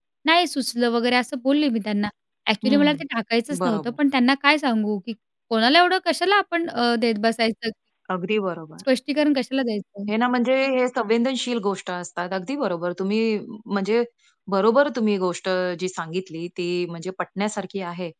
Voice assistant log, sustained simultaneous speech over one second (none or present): none